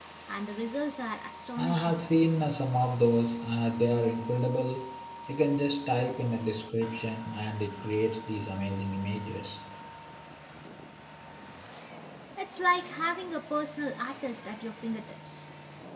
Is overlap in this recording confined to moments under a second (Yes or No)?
Yes